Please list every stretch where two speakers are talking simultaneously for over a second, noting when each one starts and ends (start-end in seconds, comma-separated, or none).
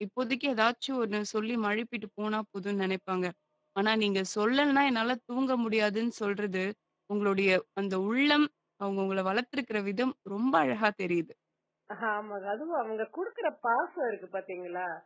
none